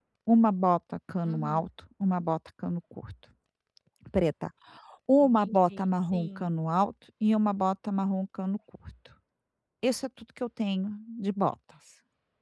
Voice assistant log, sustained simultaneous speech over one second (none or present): present